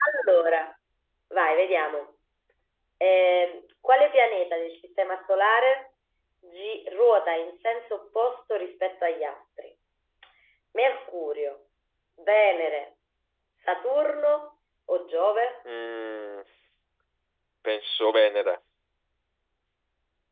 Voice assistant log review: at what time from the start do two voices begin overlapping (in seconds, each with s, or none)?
none